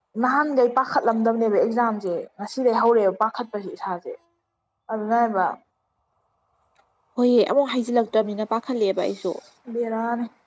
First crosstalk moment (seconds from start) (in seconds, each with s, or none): none